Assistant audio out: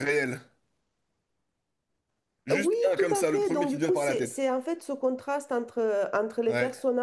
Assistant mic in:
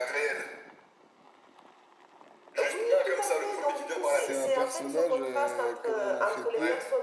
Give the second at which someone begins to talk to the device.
4.0 s

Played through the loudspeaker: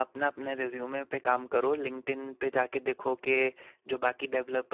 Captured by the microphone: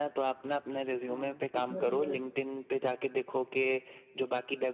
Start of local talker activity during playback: 1.1 s

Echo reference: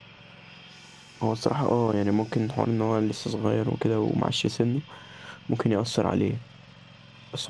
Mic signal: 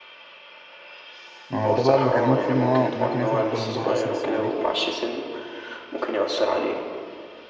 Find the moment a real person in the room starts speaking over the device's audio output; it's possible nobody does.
1.5 s

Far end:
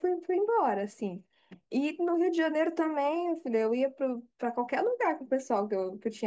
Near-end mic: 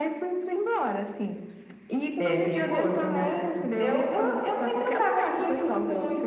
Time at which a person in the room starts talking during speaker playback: 2.2 s

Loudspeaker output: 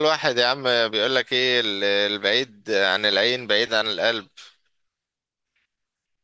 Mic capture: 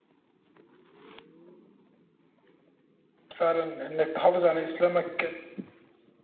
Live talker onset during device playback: 3.4 s

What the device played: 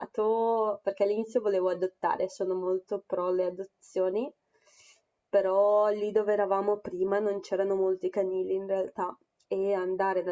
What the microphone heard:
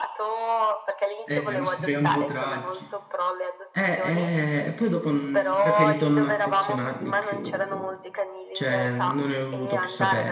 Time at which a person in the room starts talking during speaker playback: 1.2 s

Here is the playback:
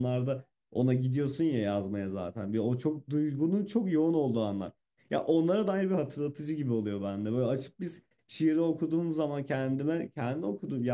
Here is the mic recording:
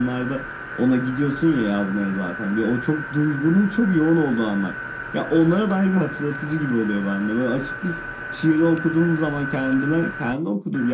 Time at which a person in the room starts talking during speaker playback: none

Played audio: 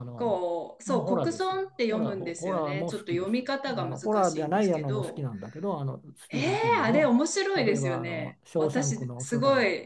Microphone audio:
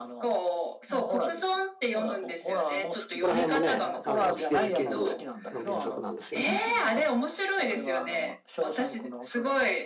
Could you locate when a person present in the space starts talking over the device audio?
3.1 s

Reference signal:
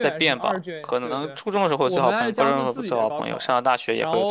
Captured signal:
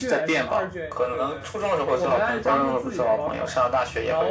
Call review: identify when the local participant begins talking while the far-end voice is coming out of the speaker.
none

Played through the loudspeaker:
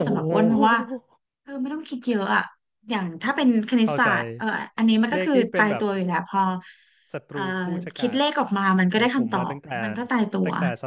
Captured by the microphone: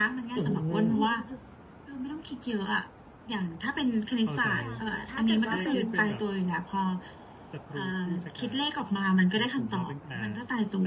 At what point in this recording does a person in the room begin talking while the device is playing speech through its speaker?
4.6 s

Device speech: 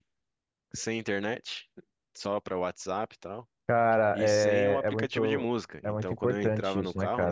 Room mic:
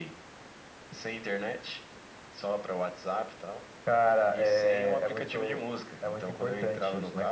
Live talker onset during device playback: none

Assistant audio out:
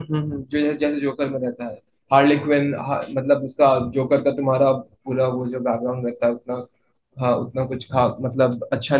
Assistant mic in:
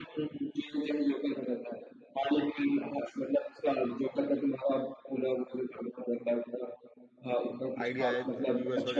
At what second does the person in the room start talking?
7.8 s

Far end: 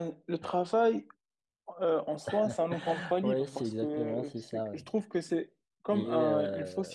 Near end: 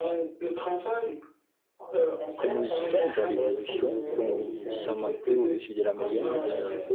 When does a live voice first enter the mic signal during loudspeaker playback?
2.4 s

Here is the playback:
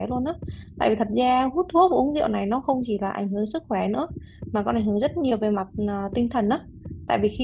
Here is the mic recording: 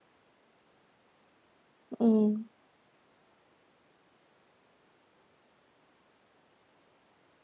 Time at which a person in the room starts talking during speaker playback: 2.0 s

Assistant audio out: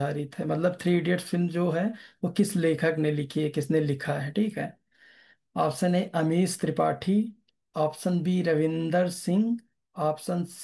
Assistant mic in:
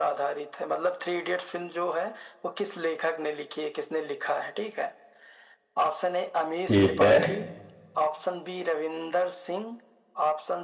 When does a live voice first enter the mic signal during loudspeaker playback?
6.7 s

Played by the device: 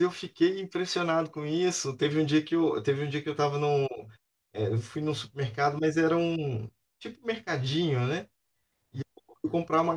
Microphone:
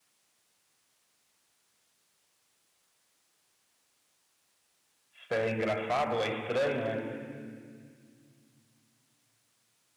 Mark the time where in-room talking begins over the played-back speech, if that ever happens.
5.3 s

